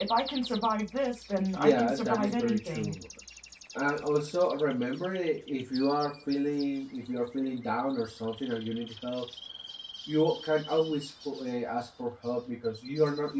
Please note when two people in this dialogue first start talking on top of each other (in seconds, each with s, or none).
1.6 s